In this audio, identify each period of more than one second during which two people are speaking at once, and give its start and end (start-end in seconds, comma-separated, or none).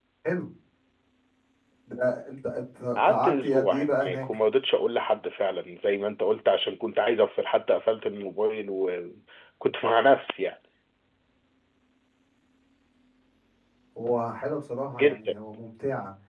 3.0-4.2